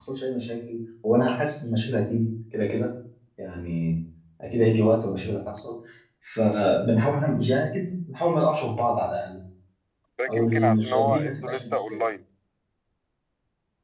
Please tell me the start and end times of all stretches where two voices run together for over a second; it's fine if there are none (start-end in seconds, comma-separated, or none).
10.4-12.0